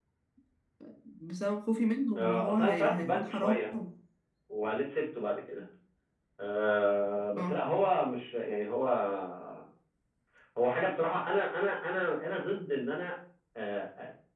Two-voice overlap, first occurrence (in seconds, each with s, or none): 2.1 s